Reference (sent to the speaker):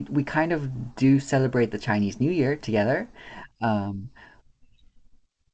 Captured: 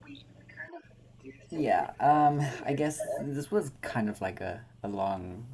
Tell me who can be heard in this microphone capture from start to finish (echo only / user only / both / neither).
both